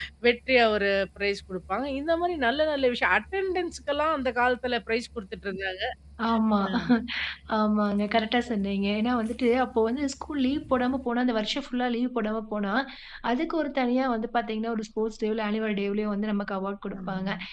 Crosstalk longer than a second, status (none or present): none